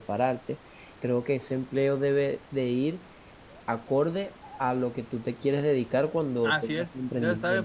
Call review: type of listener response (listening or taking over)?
taking over